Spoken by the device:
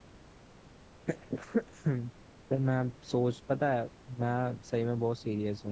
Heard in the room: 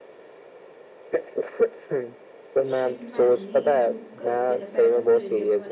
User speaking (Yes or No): Yes